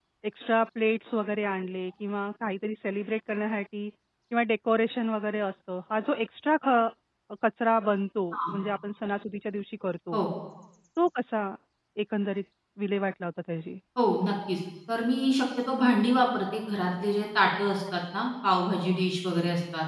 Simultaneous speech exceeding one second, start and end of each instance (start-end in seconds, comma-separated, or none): none